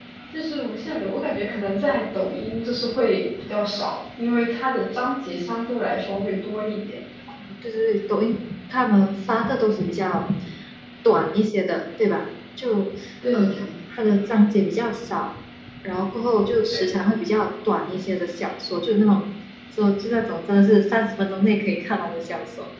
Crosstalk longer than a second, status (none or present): none